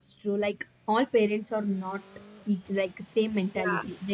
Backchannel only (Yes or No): Yes